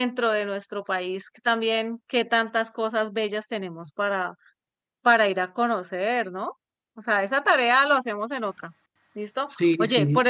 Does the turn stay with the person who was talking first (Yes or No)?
Yes